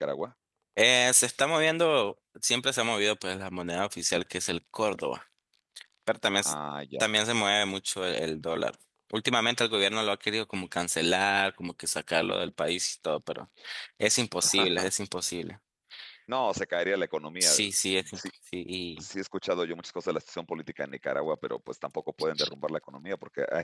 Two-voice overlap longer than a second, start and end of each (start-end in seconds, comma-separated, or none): none